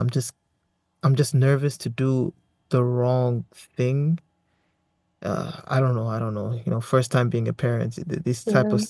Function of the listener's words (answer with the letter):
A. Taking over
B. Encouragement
B